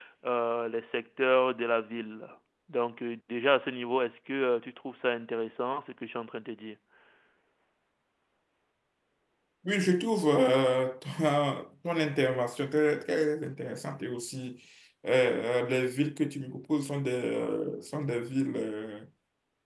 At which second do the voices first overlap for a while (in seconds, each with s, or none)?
none